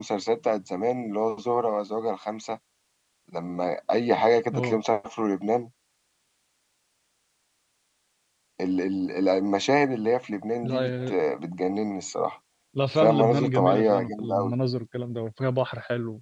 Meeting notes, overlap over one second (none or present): present